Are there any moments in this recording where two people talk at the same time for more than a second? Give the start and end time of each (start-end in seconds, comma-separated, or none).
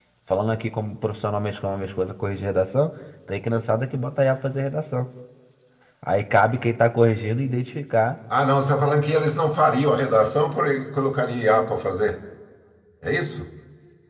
none